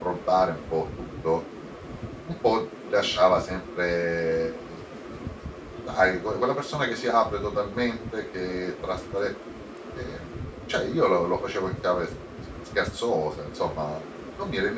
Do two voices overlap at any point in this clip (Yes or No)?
No